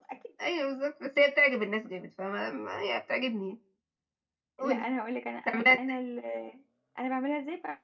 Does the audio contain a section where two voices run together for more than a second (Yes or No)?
No